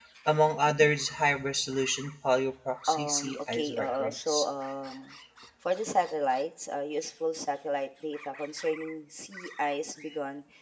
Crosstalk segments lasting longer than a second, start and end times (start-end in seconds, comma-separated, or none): 2.9-4.4